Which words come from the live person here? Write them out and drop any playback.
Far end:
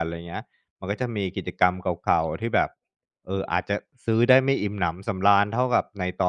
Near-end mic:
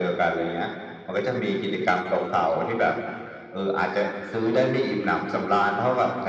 none

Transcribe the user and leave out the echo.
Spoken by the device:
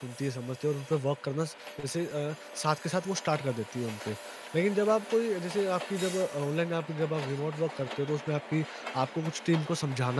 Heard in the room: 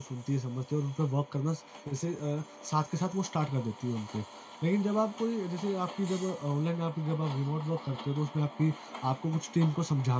none

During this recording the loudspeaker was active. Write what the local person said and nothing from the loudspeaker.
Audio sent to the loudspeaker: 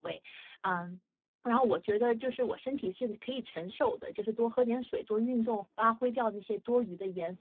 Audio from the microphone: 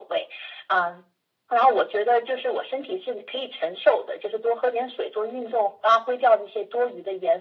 none

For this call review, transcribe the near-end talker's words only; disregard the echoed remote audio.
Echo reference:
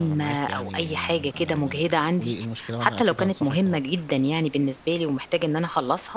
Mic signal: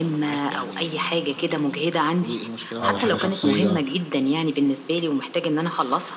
أو حاجة شخصية،

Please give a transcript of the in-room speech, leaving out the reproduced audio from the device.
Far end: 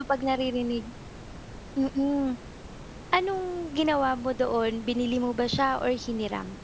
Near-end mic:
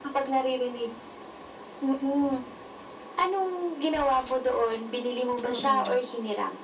oo.

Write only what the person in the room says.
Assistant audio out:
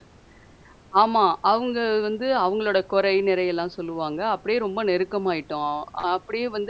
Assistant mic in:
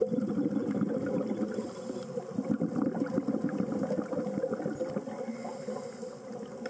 none

